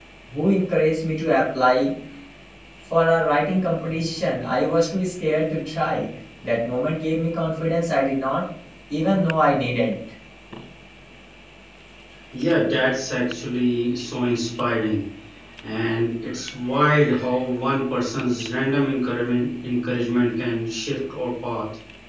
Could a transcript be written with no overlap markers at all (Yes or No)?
Yes